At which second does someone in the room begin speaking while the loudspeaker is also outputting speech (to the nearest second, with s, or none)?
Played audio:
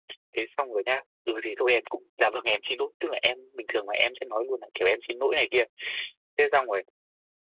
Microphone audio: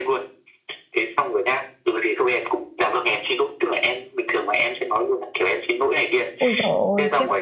6 s